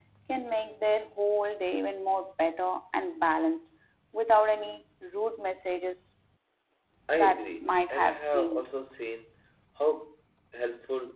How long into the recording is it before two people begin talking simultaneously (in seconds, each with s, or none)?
7.1 s